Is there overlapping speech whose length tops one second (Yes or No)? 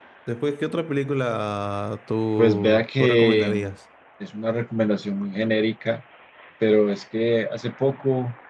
Yes